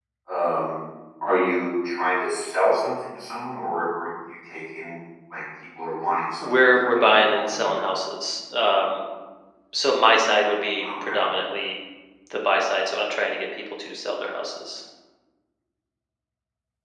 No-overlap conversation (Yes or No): No